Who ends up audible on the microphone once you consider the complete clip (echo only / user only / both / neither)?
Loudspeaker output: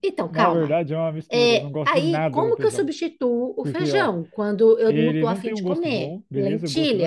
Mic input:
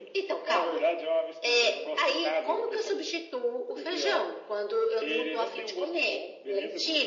echo only